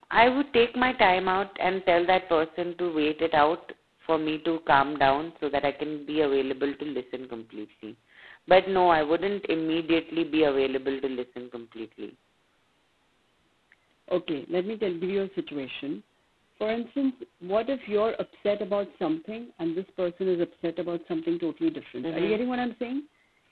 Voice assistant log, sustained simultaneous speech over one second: none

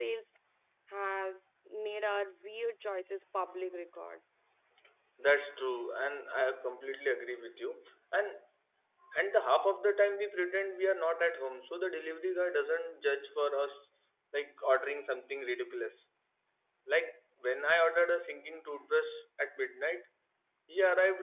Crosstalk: none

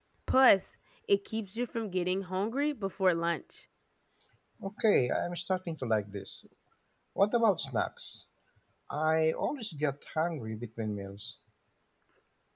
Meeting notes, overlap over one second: none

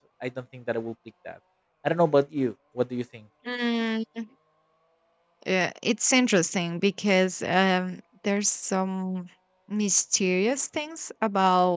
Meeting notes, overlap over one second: none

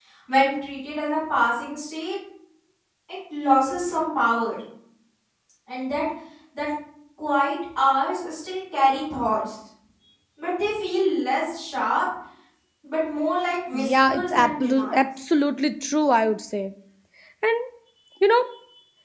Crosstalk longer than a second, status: present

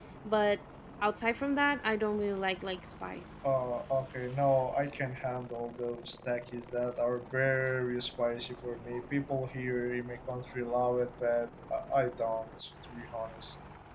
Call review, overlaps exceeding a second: none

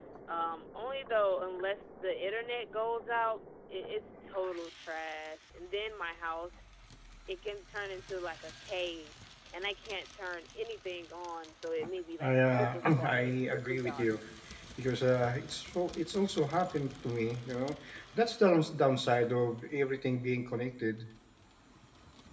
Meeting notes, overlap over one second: present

